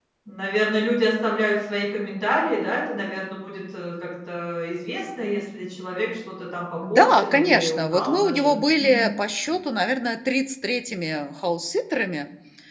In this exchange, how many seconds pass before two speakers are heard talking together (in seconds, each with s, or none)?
6.8 s